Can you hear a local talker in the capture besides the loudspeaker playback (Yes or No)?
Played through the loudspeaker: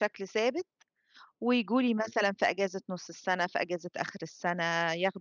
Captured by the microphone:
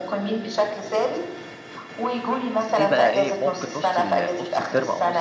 Yes